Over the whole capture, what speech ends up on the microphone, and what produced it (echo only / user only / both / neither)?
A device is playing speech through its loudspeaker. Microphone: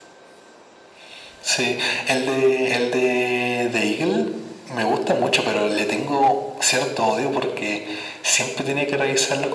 echo only